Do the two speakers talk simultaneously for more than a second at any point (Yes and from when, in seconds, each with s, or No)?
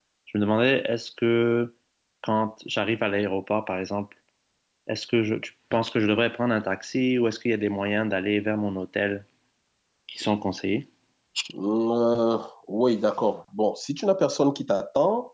No